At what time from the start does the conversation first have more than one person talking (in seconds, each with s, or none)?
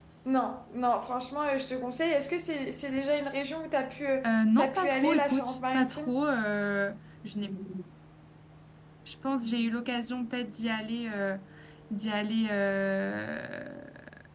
4.2 s